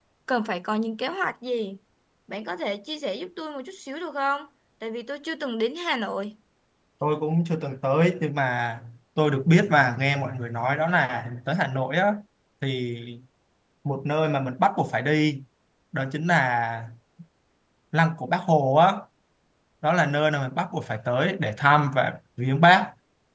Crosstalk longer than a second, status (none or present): none